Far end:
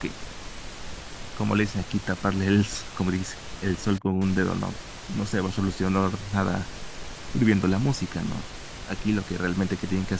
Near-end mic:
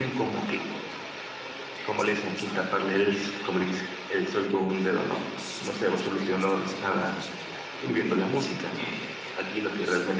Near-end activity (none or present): present